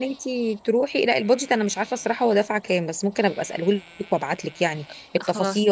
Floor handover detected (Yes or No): No